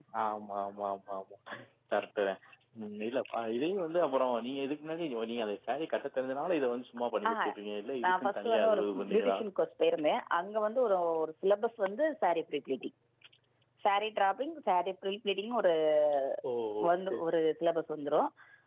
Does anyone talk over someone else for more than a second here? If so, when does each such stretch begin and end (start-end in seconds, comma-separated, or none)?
8.0-9.4